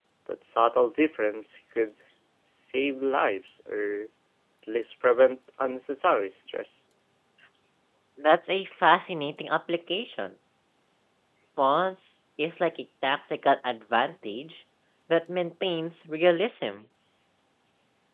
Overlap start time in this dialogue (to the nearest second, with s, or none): none